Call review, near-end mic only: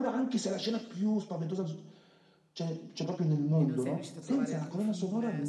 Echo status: present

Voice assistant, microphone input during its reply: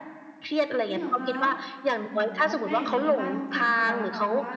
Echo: present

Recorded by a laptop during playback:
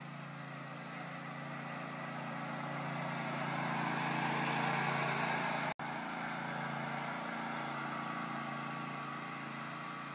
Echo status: none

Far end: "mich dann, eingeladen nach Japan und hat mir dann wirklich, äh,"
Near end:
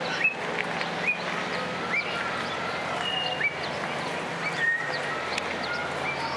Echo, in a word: none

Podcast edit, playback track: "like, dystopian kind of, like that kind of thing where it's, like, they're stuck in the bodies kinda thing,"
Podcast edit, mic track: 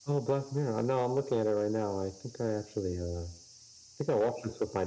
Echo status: none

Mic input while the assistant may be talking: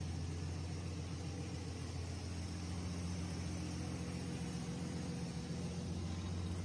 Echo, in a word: none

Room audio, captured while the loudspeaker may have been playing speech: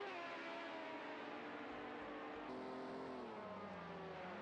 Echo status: none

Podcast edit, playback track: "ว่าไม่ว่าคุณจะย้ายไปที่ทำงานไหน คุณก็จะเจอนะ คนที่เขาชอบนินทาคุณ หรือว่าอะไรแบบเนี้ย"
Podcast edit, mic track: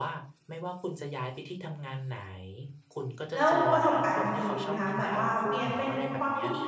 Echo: present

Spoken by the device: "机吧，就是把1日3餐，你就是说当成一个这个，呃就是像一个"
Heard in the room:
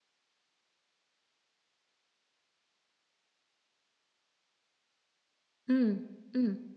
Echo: none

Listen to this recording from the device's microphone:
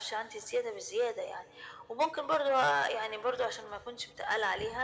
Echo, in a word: present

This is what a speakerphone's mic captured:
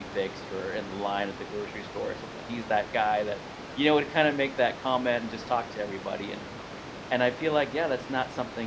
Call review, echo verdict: none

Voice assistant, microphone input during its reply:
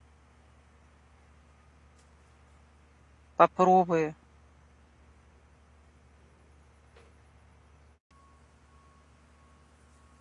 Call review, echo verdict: none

